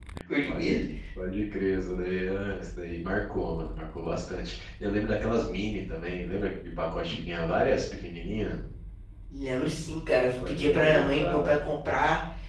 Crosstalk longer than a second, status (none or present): present